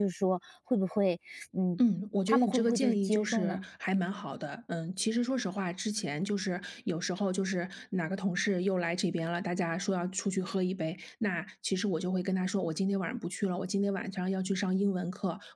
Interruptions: present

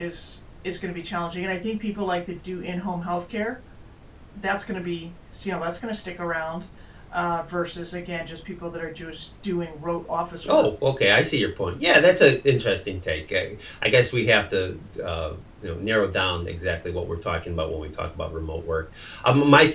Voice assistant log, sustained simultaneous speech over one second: none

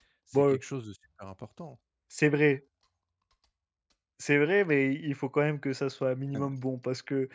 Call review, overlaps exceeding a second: none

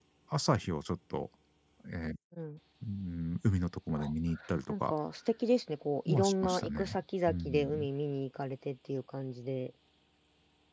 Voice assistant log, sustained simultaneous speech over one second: present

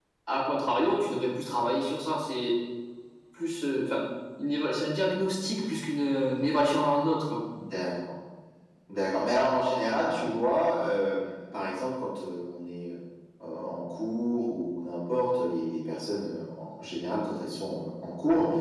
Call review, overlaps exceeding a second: none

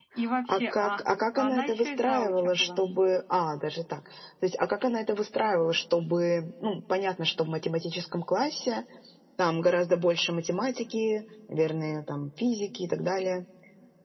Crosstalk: present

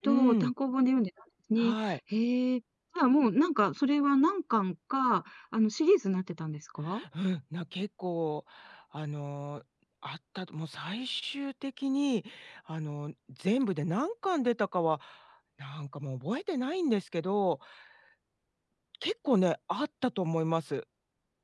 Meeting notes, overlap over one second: none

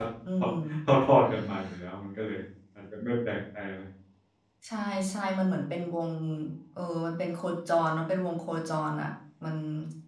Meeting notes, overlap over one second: none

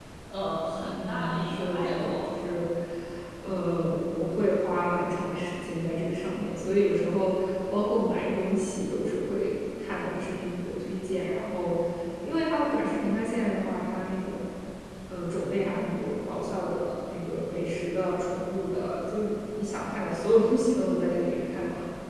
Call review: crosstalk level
present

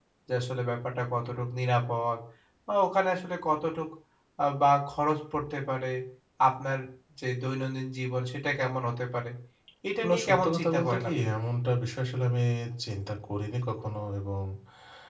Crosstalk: present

